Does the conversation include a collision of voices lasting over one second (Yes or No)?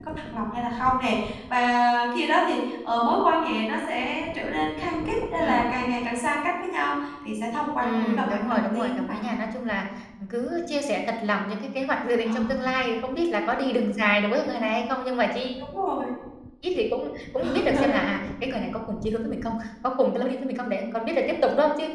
Yes